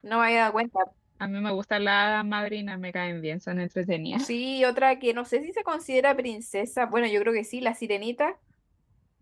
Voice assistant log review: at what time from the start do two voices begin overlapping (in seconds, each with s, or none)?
none